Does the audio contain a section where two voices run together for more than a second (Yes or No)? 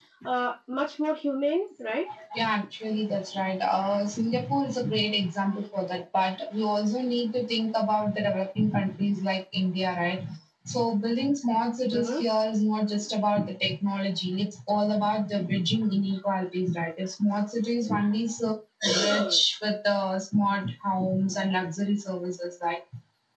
No